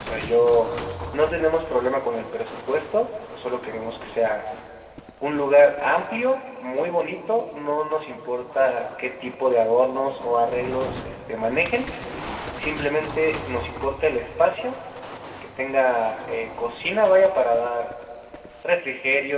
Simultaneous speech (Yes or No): No